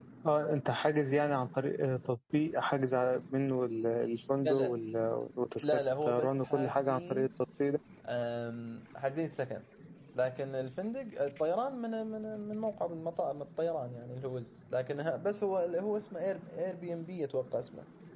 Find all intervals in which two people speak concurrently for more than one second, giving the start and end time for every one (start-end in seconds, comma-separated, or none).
5.6-7.3